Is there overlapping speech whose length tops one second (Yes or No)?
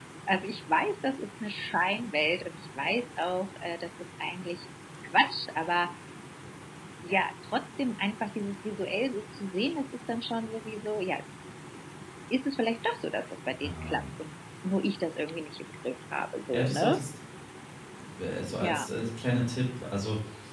No